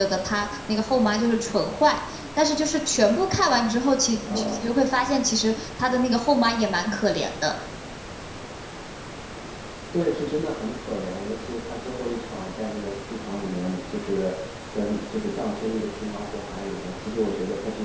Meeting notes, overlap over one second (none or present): none